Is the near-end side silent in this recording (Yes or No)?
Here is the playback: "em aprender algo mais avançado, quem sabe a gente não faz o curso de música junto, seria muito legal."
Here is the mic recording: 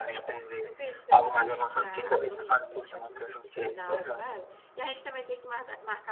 No